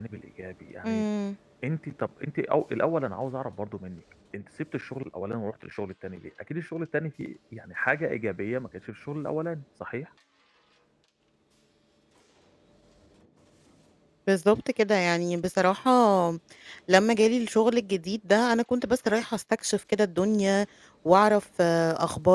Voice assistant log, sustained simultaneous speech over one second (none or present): none